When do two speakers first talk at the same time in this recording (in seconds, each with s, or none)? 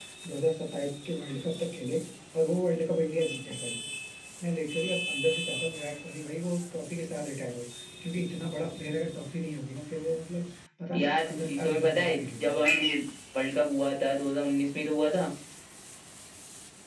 10.9 s